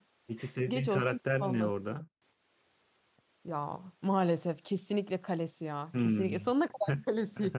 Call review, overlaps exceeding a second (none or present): present